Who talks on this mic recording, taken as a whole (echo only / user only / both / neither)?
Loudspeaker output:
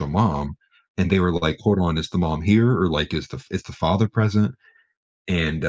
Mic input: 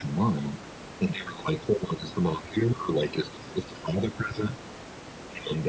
echo only